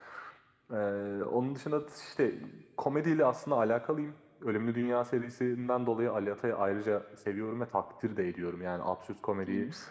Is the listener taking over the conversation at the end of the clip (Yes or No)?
No